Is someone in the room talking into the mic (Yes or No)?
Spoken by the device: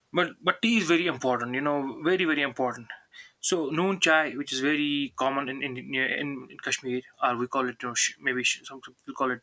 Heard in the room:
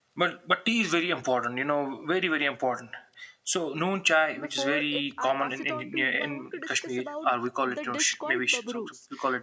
Yes